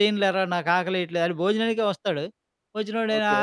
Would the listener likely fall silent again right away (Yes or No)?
Yes